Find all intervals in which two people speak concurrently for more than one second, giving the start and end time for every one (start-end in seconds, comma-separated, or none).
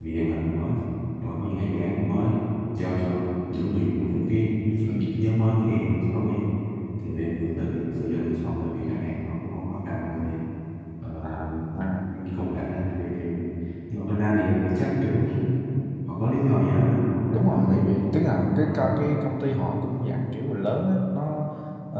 17.3-19.0